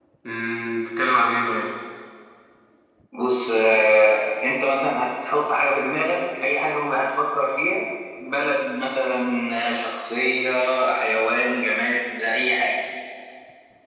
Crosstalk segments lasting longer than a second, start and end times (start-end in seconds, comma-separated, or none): none